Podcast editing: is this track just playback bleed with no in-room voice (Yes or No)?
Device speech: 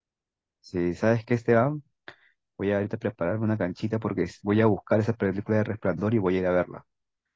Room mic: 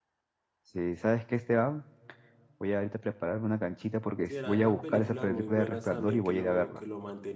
No